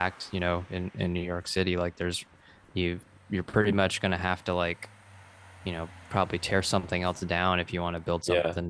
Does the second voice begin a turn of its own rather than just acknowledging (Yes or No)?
Yes